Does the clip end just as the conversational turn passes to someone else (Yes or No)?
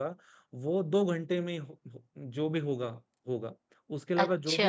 No